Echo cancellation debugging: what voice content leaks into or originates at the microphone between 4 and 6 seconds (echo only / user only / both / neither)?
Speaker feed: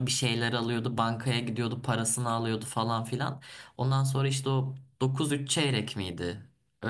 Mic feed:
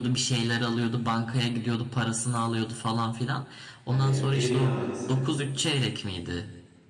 both